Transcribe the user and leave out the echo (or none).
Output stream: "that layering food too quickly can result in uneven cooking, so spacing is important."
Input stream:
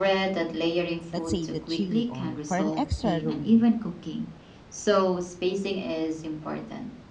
let's say the chili oil for an extra aroma.